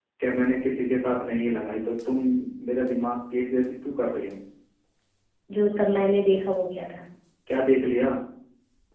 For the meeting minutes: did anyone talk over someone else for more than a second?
No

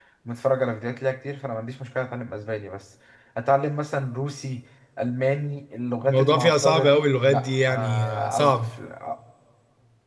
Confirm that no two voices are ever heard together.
No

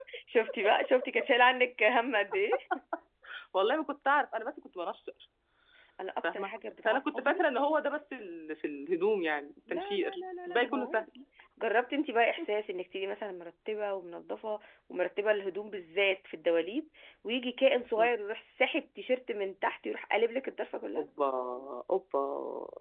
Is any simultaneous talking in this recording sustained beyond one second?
Yes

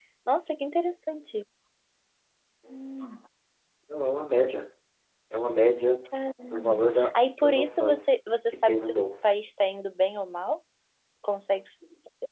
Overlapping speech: Yes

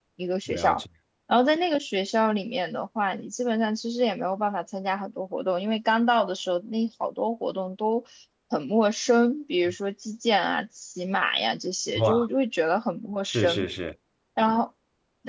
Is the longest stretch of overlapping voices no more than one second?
Yes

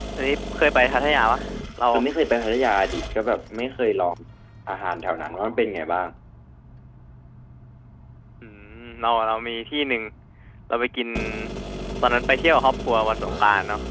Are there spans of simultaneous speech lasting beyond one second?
No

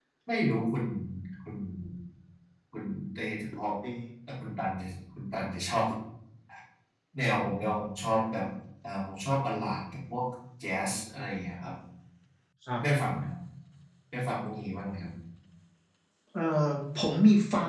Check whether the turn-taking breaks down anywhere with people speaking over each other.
No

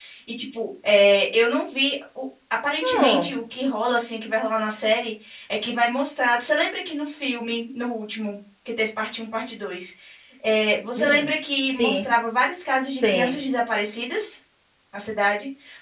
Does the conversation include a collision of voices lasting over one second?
No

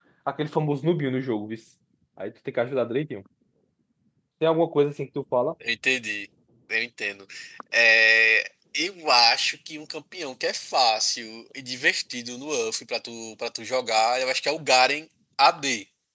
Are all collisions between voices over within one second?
Yes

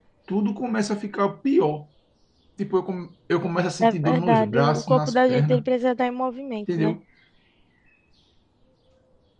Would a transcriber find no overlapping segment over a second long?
No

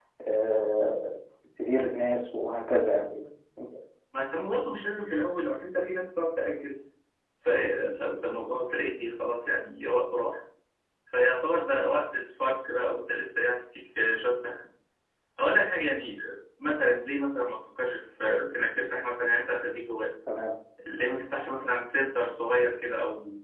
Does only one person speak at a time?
Yes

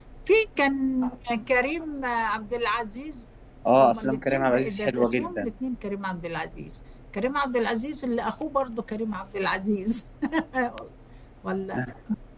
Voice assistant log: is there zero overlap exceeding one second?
No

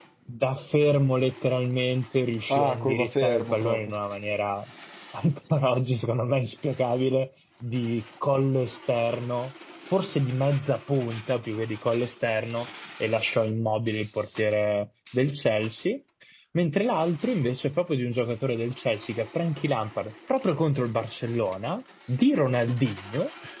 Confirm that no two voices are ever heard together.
No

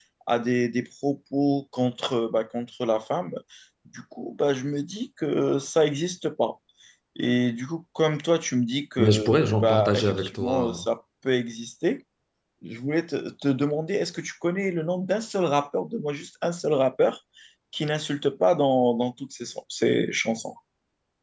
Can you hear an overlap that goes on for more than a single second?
Yes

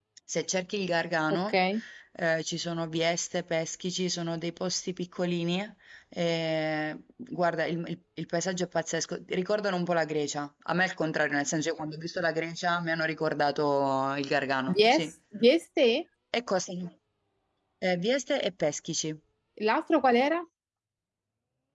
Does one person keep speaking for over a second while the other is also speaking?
No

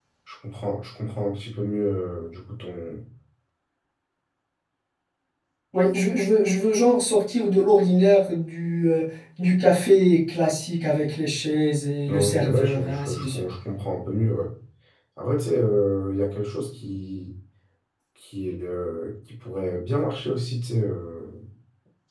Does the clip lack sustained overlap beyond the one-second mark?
No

